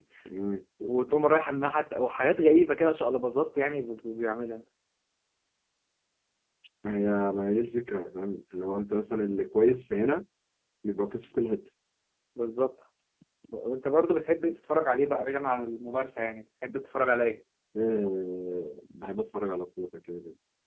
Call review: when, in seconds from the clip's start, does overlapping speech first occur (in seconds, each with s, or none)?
none